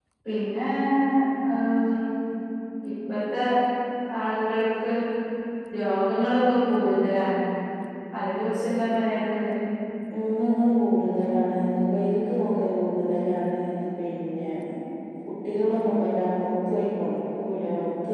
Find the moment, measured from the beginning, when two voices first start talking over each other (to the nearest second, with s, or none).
none